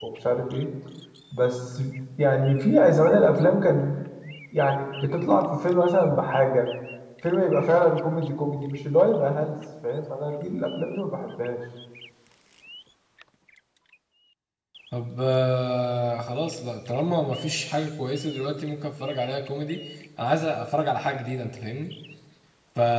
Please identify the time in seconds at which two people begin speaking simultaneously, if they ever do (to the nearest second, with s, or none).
none